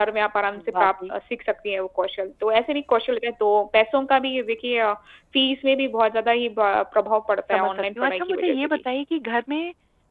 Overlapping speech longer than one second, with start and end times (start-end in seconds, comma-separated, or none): 7.5-8.8